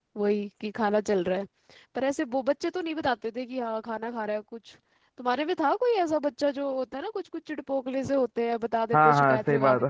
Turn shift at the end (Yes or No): Yes